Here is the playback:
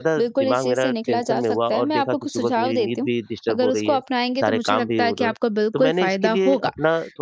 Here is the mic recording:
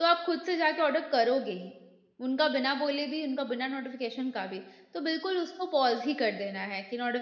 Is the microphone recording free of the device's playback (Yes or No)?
Yes